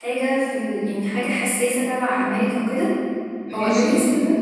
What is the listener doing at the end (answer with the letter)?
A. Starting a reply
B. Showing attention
B